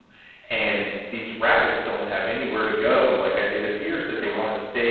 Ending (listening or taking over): listening